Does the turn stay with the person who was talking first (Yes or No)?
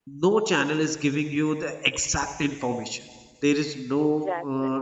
Yes